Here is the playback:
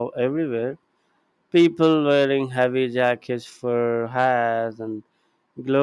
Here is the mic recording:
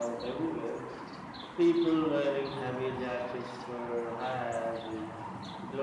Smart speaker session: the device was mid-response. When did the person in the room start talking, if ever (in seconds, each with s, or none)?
none